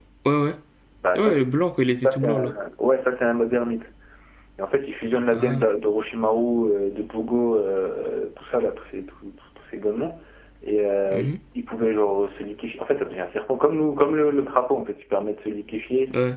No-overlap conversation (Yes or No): No